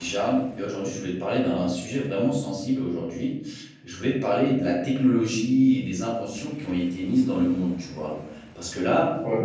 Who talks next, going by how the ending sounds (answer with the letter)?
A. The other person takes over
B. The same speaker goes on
B